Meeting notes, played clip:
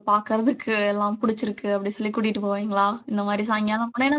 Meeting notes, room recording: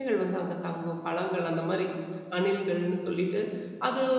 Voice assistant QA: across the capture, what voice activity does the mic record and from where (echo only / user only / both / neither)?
user only